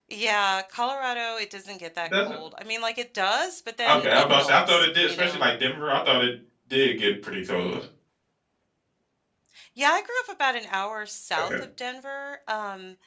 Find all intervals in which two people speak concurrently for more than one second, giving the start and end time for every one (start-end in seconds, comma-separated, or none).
3.9-5.4